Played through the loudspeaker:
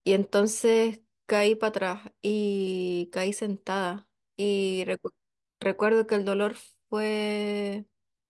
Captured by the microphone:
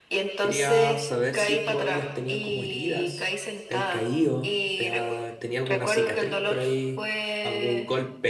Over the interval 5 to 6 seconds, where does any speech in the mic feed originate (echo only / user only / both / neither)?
both